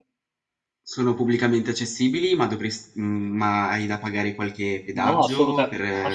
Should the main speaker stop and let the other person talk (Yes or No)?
Yes